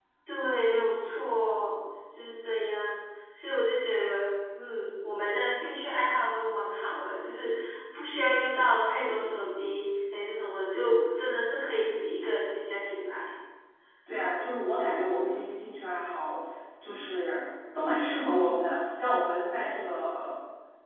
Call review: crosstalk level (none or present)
none